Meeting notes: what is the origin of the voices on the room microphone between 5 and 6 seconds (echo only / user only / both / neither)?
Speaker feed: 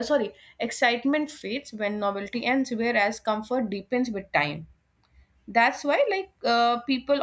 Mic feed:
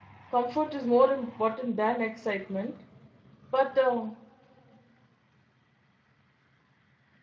neither